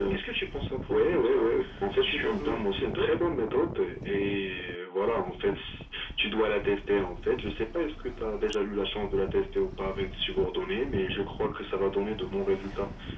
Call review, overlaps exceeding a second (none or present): present